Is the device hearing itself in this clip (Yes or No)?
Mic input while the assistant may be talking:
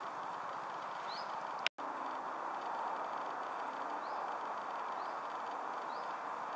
No